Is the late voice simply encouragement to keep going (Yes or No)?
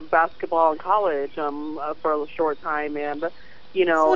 Yes